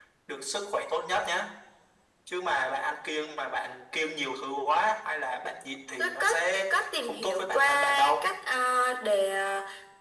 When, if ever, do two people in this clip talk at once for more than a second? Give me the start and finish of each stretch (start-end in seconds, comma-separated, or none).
6.7-8.3